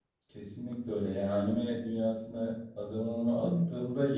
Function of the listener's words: listening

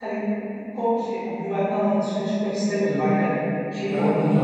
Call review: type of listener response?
taking over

